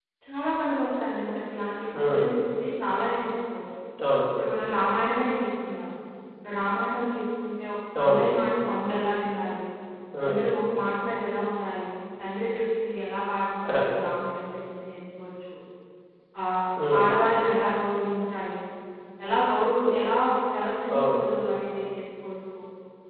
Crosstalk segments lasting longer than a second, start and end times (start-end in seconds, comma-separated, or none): none